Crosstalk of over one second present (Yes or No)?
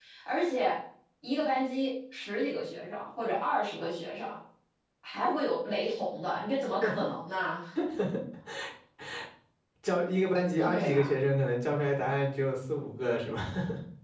No